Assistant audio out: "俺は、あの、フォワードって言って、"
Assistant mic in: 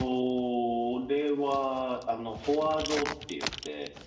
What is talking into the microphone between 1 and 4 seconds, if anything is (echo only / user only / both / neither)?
echo only